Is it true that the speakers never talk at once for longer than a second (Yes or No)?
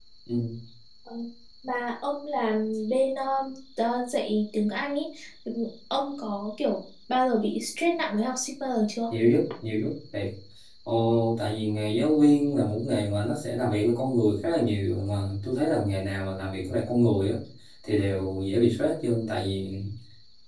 Yes